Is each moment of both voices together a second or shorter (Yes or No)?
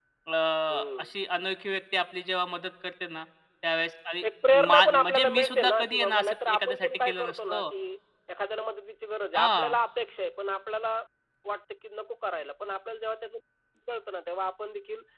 No